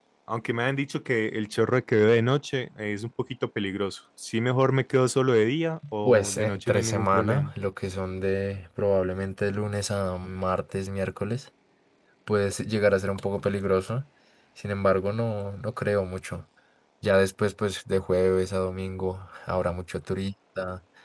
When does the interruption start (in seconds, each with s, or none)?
6.0 s